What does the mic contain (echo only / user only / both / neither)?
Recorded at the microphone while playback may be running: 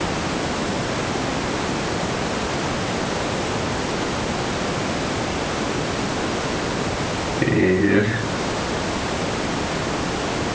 user only